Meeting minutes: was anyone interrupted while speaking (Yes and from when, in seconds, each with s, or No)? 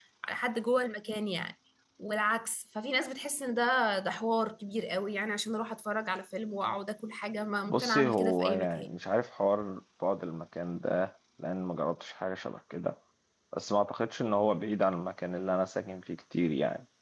Yes, from 7.7 s